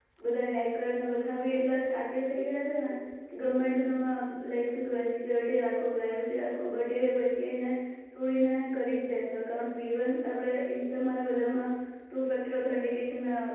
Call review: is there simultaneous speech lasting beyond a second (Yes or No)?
No